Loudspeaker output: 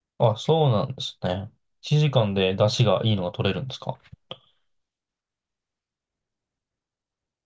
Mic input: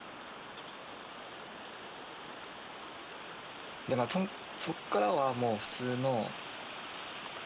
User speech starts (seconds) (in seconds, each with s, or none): 3.9 s